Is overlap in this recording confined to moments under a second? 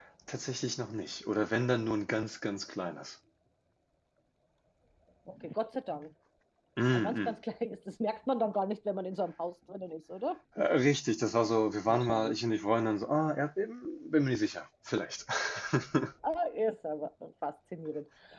Yes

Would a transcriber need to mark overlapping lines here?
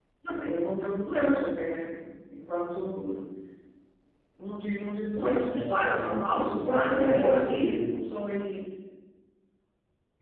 Yes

